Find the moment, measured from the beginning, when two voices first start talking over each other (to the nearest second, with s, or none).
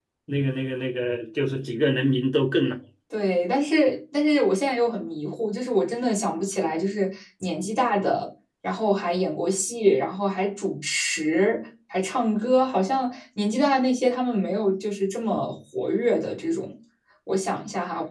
none